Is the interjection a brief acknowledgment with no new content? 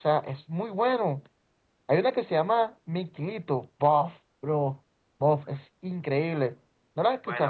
No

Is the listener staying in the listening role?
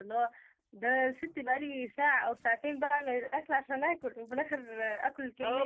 No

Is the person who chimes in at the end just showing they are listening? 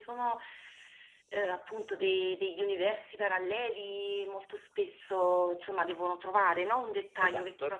No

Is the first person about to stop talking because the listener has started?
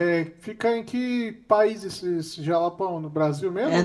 Yes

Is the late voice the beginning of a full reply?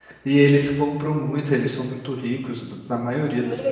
Yes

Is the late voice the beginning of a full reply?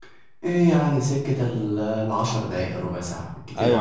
Yes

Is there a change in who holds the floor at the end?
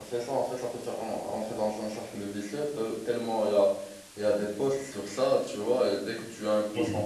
No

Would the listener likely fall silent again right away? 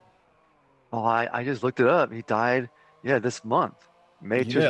No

